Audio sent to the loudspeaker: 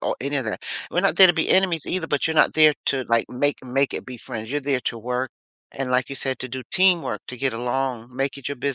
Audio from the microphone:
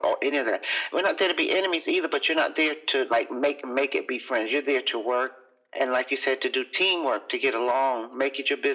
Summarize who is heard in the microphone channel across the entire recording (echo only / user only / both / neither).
echo only